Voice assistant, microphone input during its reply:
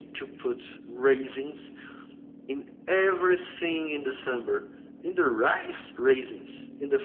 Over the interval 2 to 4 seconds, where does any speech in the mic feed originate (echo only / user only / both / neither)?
echo only